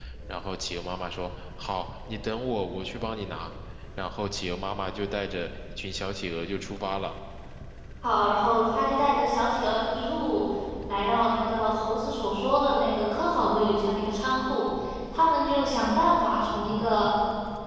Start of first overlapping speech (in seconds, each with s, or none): none